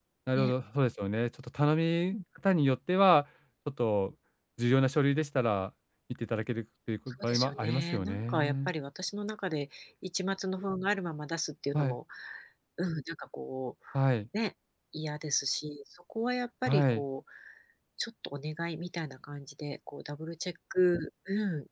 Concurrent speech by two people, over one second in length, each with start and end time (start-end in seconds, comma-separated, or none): 7.2-8.7